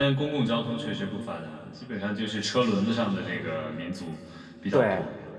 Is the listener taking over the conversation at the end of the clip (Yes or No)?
Yes